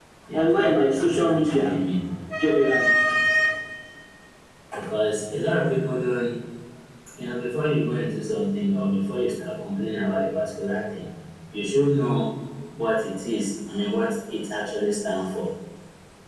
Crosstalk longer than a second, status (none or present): present